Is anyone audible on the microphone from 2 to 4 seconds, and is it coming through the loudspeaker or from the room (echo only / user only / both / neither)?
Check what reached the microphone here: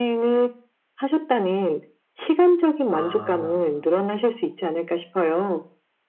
both